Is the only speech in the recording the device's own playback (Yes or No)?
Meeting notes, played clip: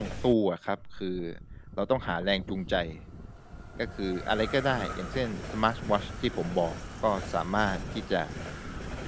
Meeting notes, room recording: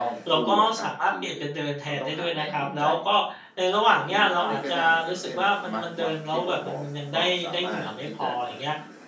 No